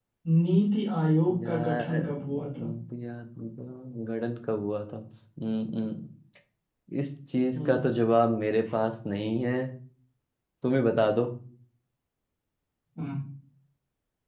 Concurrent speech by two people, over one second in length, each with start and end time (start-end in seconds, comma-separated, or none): 1.4-2.7